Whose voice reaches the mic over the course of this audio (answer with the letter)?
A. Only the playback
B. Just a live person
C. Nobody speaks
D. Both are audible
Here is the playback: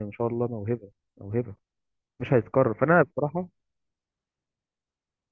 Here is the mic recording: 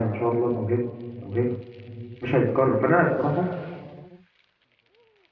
A